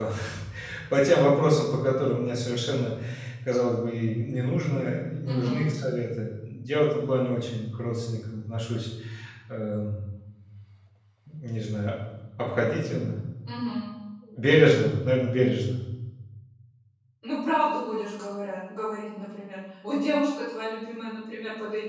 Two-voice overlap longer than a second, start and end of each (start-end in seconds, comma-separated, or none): none